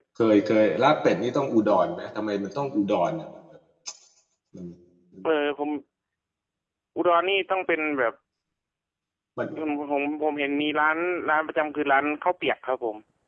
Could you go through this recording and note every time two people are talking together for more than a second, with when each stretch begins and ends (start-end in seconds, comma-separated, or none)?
none